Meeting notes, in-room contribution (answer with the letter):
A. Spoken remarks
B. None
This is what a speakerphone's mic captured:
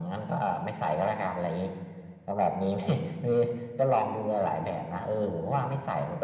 B